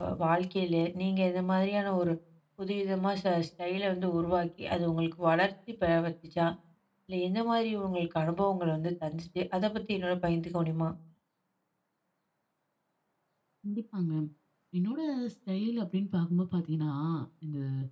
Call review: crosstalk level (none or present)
none